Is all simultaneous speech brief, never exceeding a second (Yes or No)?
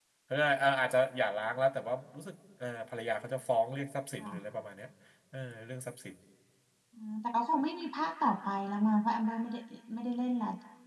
Yes